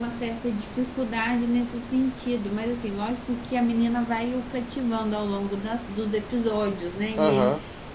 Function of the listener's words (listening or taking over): listening